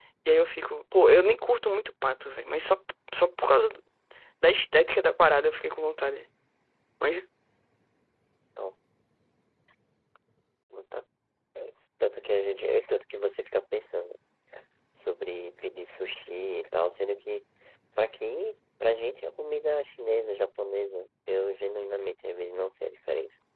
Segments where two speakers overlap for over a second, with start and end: none

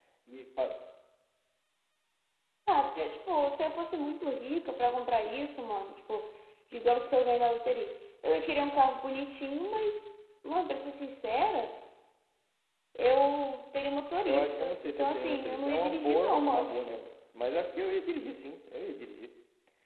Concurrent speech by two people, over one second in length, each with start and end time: 14.2-16.7

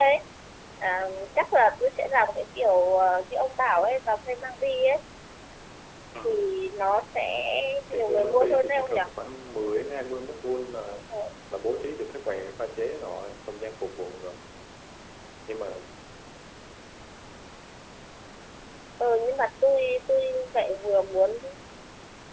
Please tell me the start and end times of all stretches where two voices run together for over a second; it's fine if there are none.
7.9-9.1

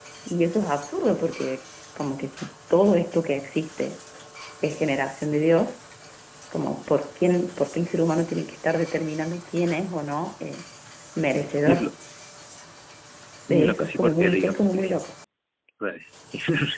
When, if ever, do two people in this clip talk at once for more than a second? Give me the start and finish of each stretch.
13.5-14.9

